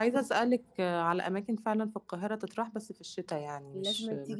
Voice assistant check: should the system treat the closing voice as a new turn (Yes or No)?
Yes